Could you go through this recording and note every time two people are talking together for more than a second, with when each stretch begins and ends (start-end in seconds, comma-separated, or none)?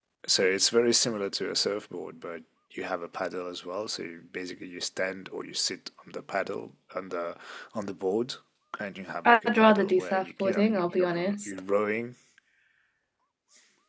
9.2-11.5